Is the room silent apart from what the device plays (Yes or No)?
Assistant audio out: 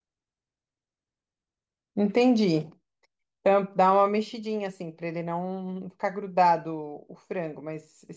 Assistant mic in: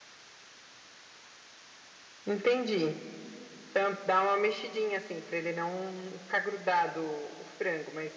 Yes